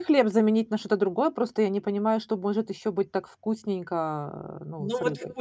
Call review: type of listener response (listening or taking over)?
taking over